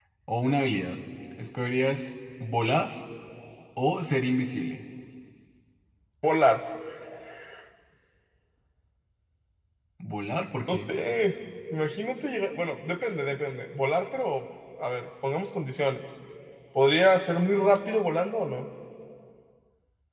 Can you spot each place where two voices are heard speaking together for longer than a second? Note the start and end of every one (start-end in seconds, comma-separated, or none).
none